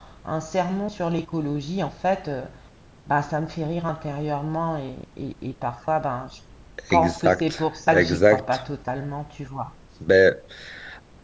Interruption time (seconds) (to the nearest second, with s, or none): 7 s